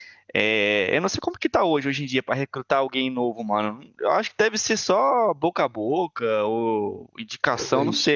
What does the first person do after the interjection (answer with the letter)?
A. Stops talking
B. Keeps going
B